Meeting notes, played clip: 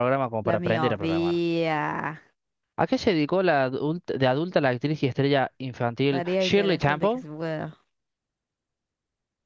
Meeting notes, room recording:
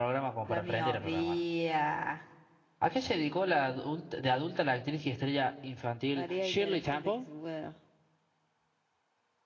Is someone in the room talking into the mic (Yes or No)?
No